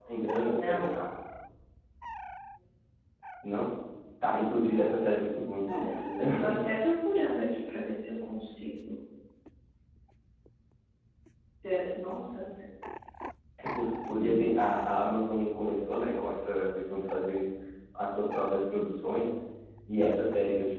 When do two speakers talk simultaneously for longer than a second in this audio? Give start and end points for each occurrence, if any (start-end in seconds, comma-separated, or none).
none